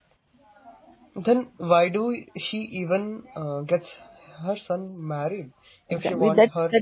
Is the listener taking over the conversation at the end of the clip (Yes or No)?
Yes